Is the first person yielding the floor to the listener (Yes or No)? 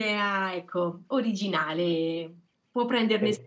Yes